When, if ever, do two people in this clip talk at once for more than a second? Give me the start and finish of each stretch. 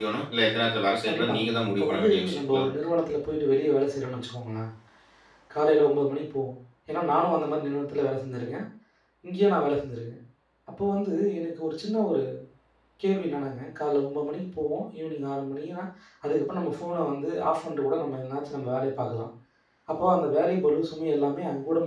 1.0-2.9

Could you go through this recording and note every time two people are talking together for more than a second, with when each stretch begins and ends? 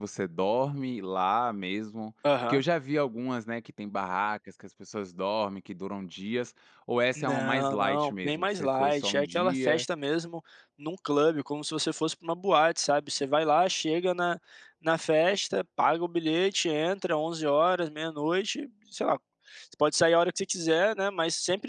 7.2-9.8

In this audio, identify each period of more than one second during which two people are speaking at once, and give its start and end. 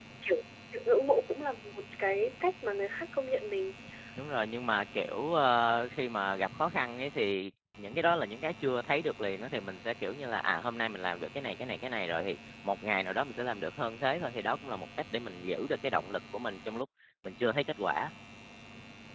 none

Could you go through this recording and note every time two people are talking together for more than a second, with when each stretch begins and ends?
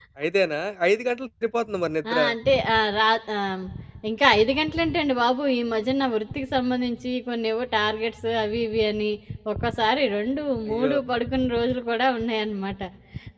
none

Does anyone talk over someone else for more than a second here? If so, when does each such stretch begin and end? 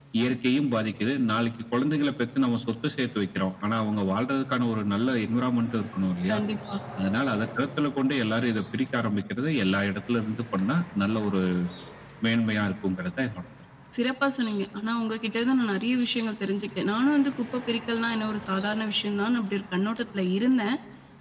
none

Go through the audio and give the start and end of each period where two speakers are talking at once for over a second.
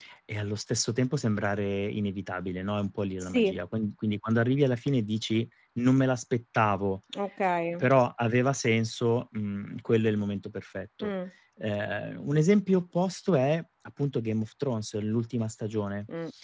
none

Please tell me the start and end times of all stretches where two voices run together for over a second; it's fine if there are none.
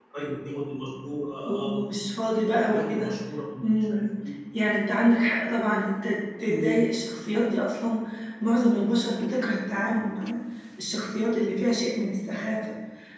none

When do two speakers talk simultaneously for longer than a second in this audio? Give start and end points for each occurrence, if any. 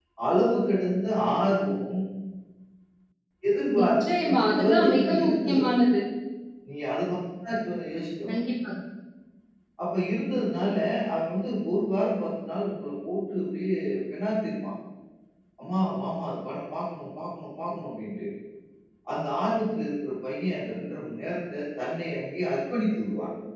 3.8-5.8

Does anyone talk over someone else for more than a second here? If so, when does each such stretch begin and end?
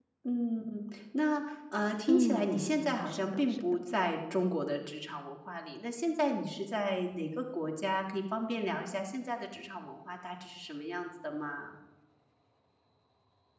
2.1-3.7

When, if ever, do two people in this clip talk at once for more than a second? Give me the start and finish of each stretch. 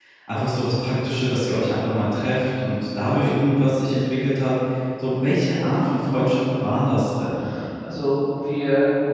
none

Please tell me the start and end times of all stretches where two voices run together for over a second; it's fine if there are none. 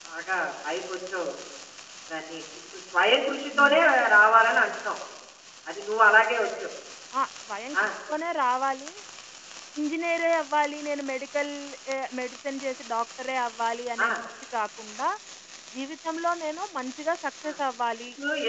none

